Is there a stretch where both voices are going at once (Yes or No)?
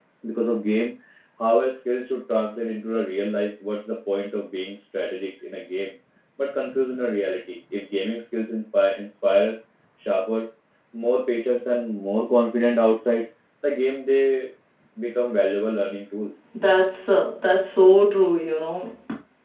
No